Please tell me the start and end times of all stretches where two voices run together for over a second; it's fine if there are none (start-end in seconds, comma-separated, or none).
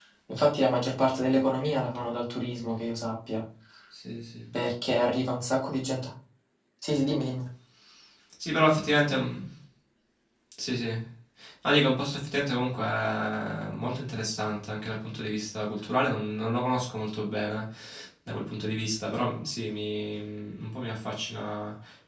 none